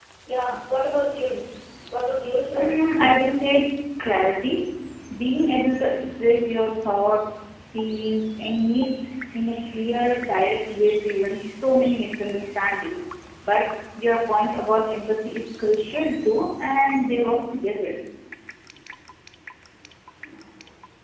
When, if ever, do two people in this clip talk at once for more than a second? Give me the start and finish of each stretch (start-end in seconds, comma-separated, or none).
none